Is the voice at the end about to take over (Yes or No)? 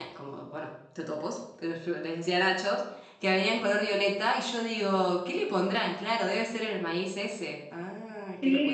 Yes